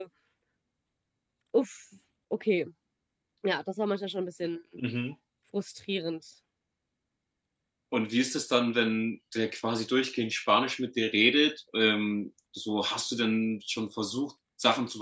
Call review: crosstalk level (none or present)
none